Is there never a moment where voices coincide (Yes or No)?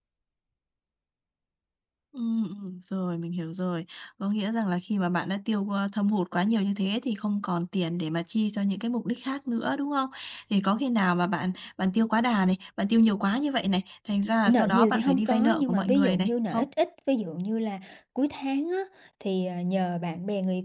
No